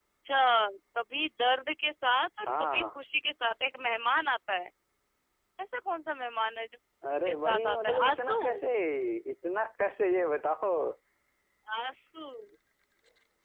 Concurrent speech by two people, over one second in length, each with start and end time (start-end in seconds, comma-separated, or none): 7.2-8.6